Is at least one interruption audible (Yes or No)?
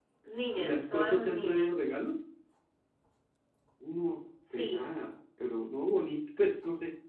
Yes